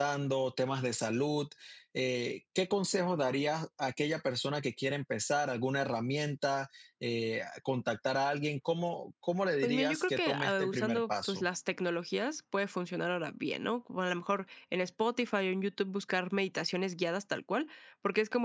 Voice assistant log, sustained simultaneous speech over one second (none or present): present